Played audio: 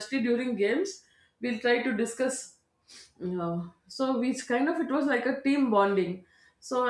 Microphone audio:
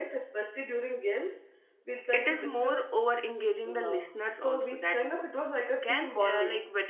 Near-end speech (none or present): present